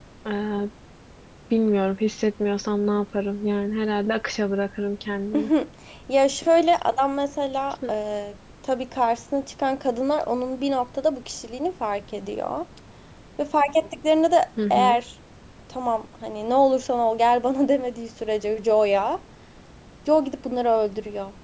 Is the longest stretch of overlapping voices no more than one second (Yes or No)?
Yes